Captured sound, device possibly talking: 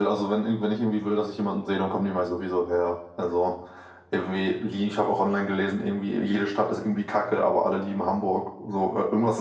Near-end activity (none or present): present